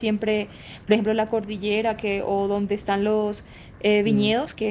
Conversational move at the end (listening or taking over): listening